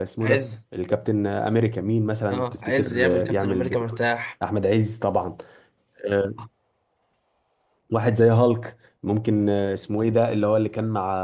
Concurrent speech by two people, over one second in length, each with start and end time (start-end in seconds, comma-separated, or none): 2.3-4.0